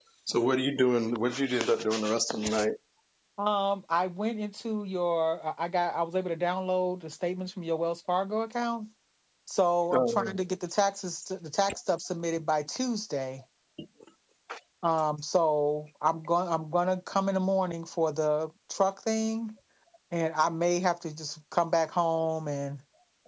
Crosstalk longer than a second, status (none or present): none